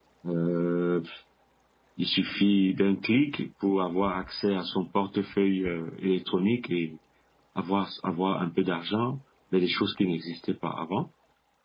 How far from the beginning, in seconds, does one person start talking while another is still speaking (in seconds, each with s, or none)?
none